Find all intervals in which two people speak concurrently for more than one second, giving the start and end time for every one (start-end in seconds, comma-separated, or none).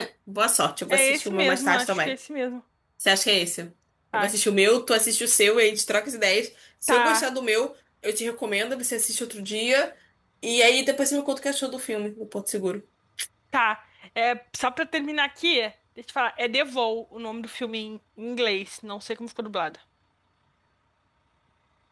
0.9-2.1